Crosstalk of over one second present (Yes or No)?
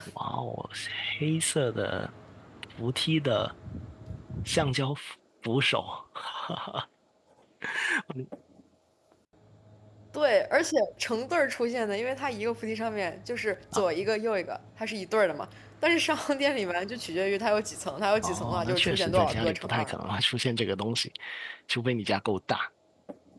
Yes